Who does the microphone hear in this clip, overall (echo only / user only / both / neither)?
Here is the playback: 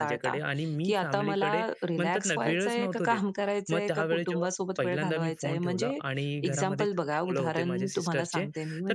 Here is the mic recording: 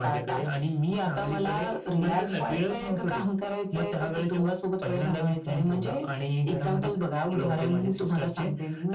echo only